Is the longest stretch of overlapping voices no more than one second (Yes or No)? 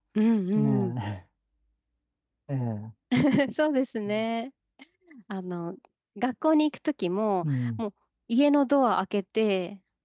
Yes